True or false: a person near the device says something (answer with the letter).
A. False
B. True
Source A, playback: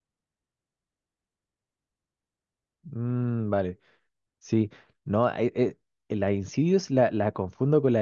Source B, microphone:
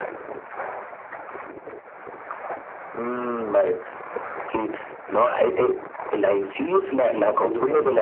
B